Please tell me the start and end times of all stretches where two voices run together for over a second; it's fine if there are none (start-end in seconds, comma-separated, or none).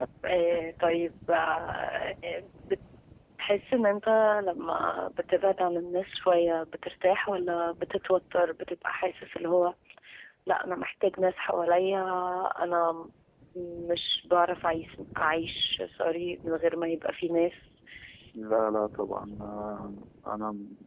none